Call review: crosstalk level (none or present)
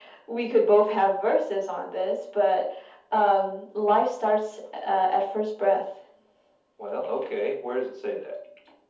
none